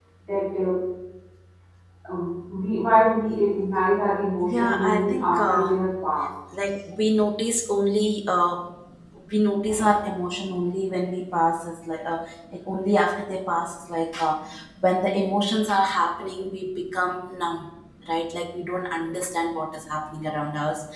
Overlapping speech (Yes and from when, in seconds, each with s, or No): Yes, from 4.4 s